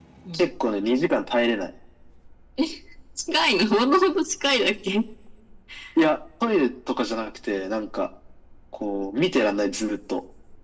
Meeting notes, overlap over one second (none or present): none